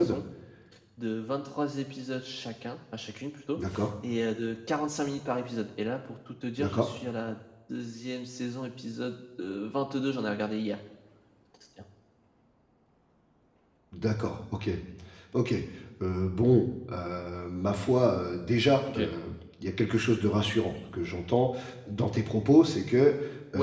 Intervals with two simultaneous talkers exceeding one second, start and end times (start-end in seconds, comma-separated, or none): none